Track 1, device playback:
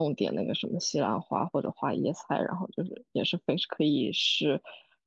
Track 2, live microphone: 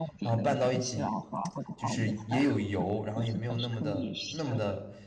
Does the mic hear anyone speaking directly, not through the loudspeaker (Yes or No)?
Yes